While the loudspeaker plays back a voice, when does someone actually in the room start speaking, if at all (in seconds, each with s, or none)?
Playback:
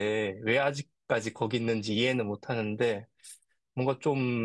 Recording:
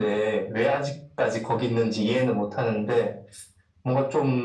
none